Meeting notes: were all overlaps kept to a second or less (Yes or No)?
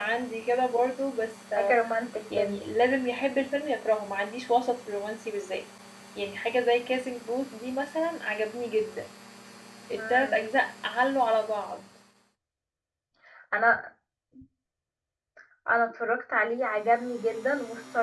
Yes